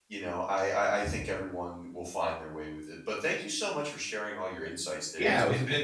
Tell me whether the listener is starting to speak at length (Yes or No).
Yes